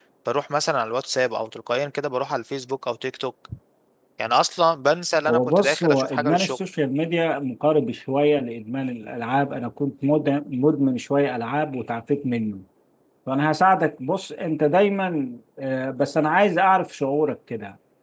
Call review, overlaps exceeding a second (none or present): present